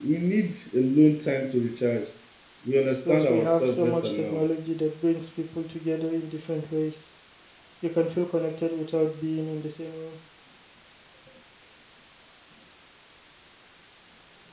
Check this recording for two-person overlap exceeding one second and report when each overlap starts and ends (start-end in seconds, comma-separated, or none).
3.0-4.5